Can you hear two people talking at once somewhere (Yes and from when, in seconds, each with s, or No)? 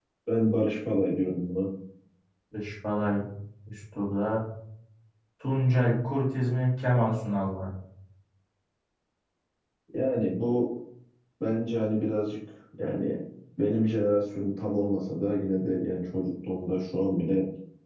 No